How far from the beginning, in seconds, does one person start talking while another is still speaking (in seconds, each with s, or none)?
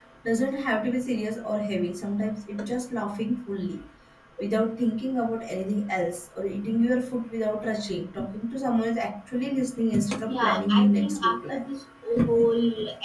10.1 s